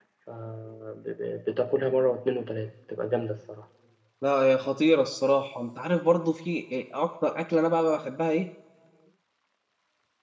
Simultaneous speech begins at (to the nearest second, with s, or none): none